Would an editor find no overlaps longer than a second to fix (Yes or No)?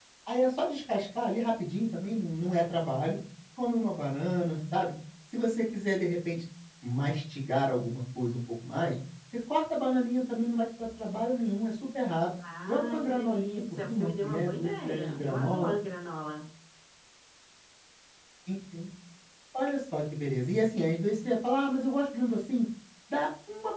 No